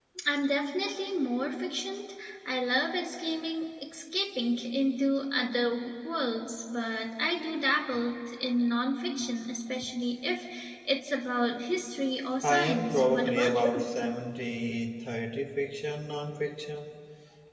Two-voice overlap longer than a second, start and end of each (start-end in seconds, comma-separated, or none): 12.4-13.9